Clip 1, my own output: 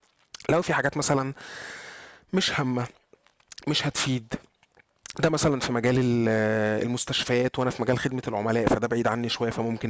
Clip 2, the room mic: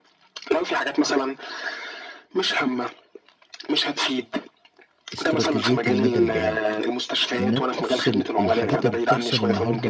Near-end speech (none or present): present